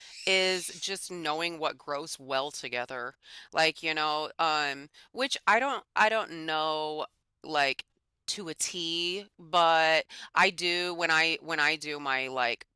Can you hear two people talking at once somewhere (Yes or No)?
No